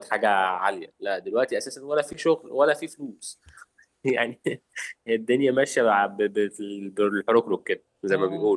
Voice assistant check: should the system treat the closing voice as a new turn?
Yes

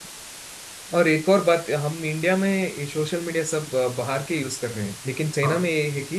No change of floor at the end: Yes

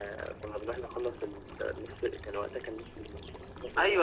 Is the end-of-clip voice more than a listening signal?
Yes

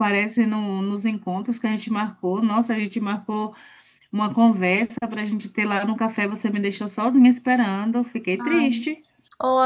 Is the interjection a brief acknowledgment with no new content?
No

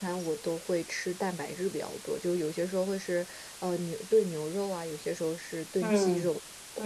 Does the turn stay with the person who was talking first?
No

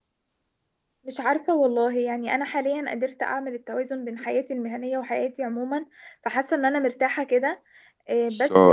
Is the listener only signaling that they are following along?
No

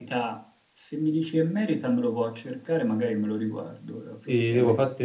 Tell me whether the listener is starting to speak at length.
Yes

